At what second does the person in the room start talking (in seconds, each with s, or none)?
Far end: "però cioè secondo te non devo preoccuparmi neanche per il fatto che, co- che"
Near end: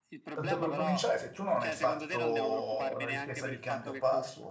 0.3 s